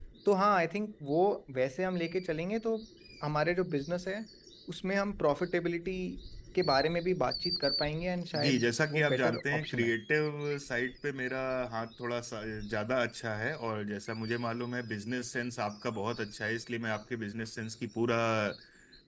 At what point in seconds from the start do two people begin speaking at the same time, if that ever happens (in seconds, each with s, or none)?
8.3 s